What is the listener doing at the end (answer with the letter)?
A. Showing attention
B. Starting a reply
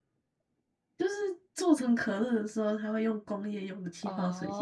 B